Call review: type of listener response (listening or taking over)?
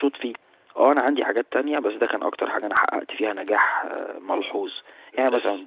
listening